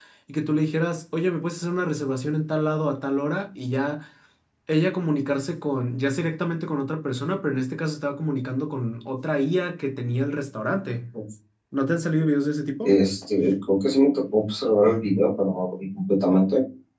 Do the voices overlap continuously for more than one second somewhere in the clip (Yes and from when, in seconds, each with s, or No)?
No